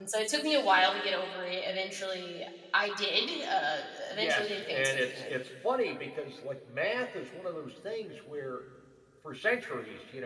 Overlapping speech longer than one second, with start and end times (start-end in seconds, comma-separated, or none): 4.1-5.3